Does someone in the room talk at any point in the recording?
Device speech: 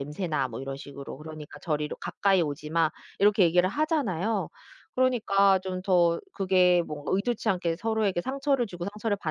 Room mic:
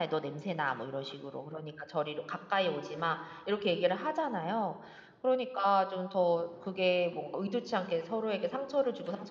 No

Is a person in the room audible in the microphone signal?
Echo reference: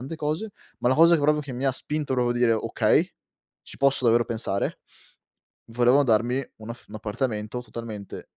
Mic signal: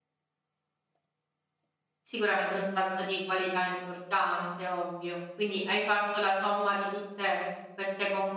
Yes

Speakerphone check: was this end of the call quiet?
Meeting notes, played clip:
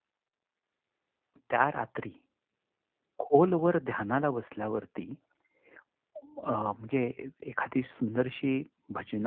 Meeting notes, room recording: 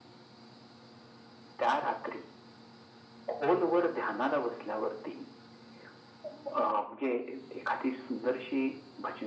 Yes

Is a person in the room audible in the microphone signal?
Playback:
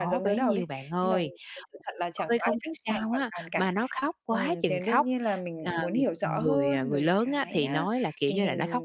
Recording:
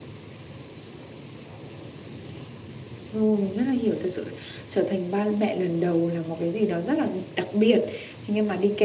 Yes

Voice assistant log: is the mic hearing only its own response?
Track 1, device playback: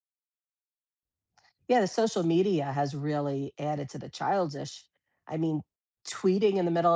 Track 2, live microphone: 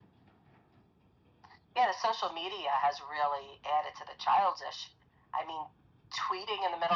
Yes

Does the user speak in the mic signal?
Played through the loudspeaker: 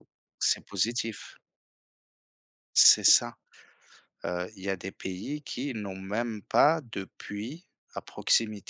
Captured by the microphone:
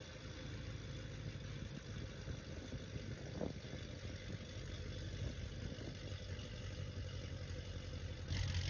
No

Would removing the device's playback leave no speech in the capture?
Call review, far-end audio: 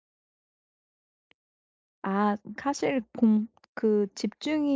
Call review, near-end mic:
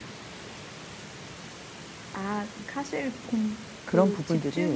No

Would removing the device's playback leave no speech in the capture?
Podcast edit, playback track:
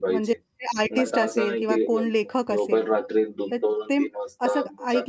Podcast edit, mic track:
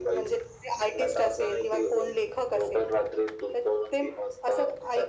Yes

